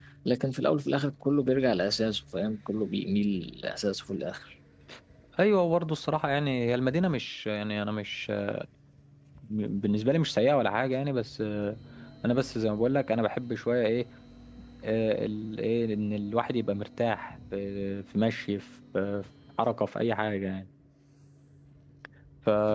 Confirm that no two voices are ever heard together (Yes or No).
Yes